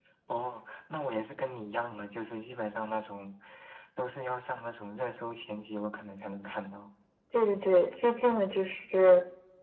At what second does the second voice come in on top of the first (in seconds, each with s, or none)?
none